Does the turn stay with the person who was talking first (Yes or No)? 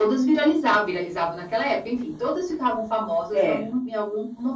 Yes